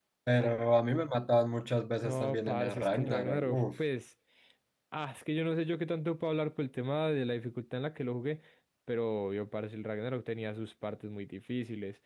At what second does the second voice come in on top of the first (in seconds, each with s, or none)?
2.0 s